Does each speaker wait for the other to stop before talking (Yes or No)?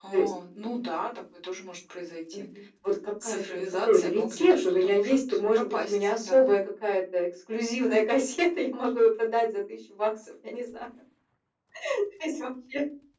No